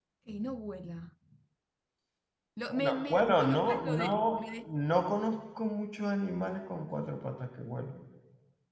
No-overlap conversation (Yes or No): No